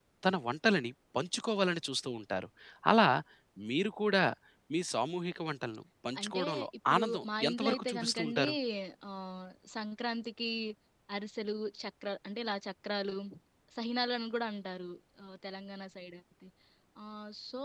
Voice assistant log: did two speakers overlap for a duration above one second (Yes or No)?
Yes